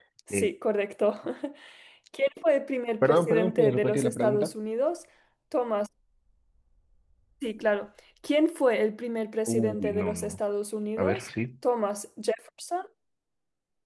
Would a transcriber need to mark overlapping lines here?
Yes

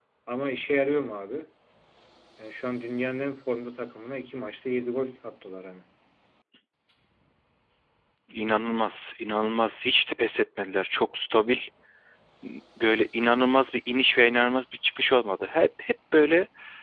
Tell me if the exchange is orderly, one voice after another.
Yes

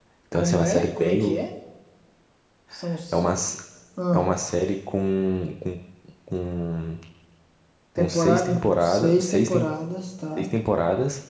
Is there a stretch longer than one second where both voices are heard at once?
Yes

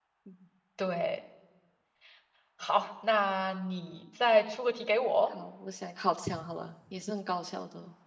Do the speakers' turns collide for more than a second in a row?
No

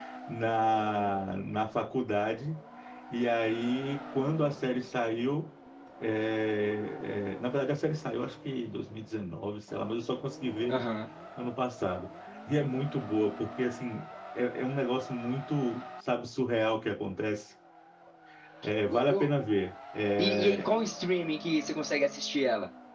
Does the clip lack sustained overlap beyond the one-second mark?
Yes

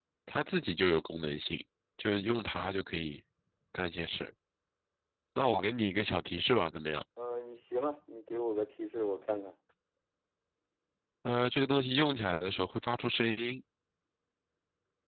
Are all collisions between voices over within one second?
Yes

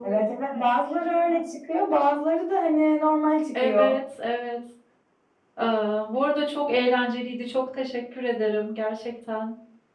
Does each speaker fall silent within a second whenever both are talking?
Yes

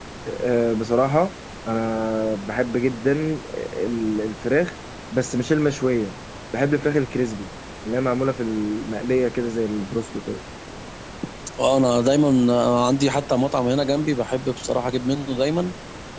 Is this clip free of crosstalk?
Yes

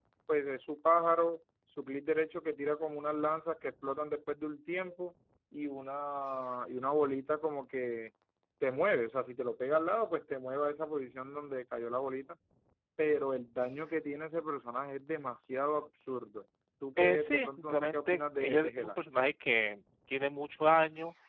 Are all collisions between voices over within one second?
No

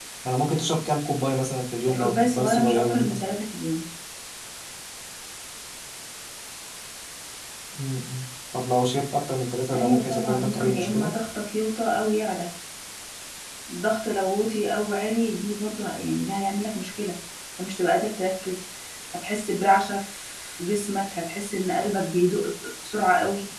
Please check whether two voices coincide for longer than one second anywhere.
Yes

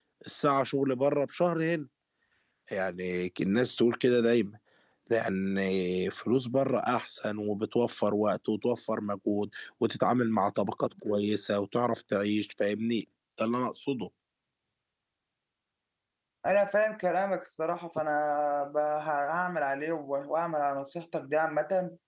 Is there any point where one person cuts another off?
No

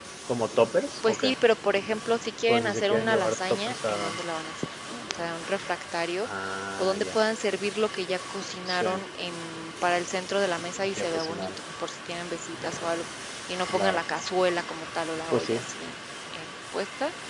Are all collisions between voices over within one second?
No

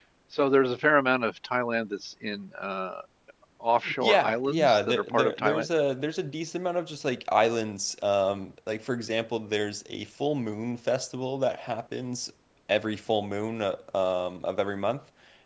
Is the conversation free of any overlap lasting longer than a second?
No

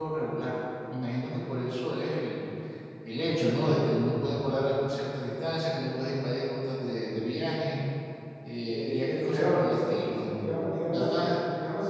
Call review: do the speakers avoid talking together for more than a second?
No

